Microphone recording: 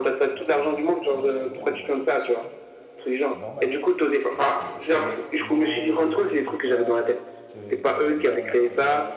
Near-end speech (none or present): present